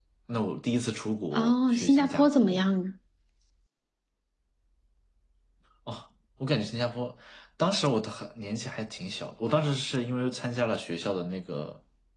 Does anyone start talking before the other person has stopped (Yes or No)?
Yes